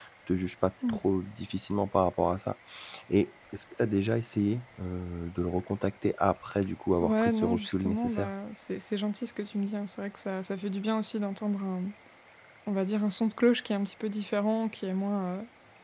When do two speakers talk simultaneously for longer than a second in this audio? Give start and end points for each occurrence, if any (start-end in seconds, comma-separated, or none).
7.0-8.3